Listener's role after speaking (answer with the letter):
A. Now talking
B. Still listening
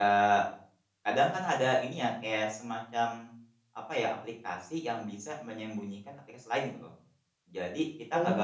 A